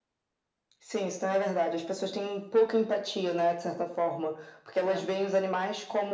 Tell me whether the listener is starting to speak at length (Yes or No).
No